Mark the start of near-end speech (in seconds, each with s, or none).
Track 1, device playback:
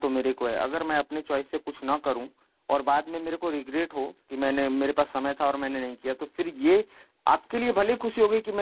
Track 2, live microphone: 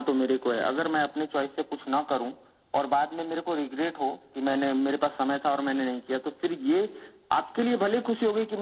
none